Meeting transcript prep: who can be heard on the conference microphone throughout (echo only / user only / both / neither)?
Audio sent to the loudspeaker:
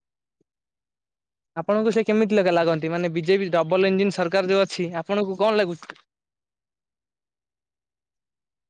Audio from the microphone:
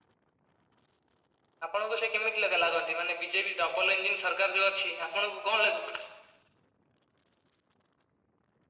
echo only